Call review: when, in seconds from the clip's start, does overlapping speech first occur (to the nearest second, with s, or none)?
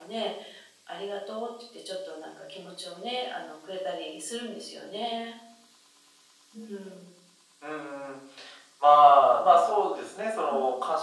none